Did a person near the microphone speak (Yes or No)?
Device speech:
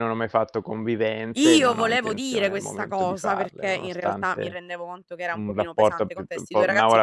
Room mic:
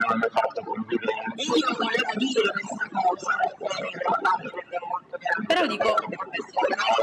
Yes